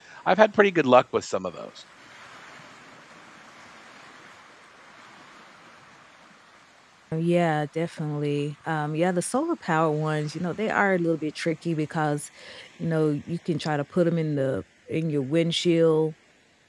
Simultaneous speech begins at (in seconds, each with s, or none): none